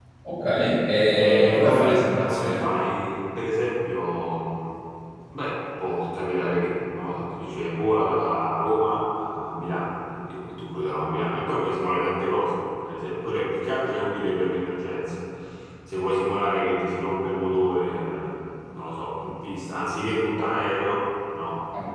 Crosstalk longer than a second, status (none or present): present